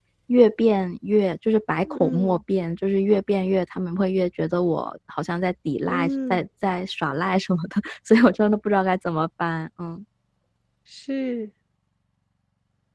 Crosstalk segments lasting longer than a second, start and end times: none

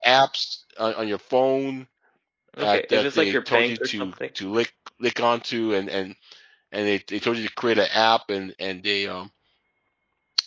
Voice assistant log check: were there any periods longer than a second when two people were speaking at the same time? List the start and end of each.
2.6-4.1

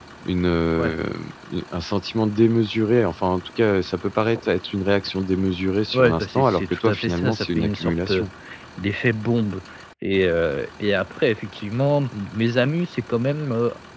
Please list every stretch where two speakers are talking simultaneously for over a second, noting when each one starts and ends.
5.9-8.3

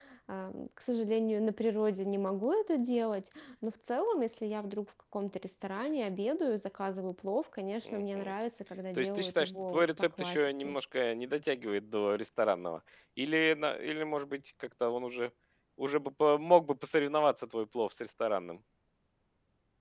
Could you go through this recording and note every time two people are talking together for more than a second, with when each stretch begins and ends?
9.0-10.8

